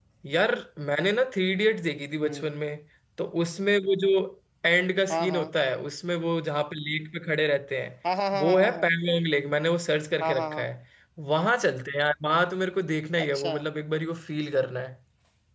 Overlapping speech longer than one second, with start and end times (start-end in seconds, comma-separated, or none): none